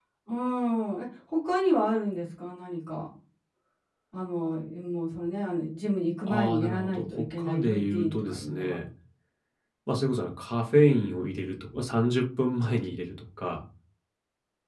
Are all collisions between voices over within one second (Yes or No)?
No